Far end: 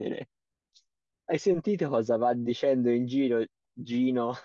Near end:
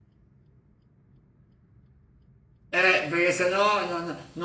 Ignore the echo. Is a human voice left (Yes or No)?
Yes